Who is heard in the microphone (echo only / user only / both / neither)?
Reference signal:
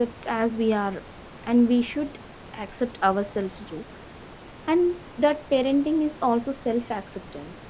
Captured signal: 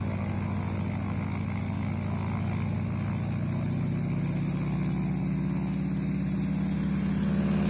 neither